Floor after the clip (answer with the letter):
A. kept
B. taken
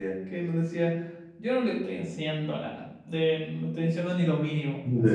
A